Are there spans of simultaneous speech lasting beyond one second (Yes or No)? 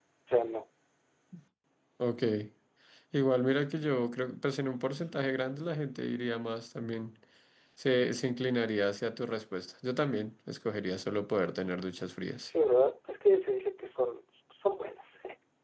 No